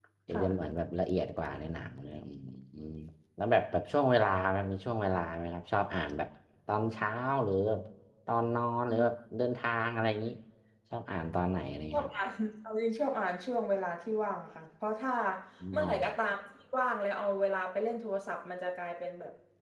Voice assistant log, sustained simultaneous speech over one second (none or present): none